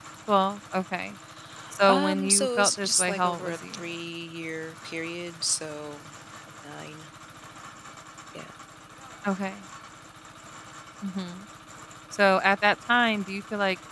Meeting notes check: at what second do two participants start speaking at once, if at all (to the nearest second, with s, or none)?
2 s